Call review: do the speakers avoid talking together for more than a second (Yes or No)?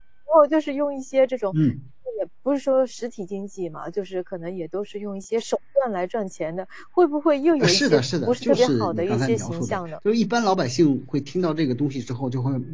No